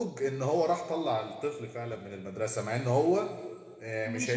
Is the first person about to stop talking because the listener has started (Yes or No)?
No